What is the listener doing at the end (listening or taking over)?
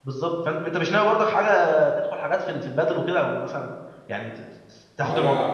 taking over